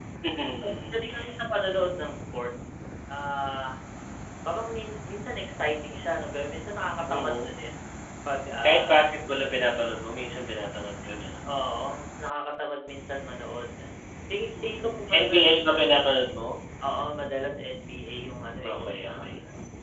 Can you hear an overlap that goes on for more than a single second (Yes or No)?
Yes